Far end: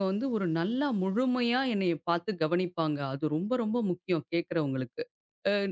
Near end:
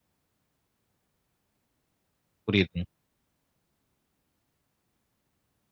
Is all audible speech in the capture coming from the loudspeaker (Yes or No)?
No